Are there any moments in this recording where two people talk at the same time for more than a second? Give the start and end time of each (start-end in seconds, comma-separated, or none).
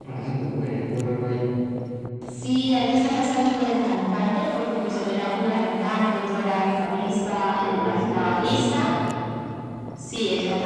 7.6-8.9